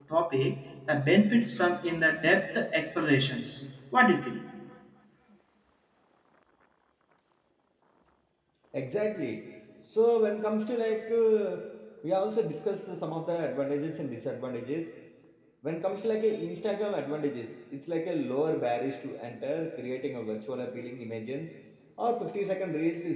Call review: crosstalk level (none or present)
none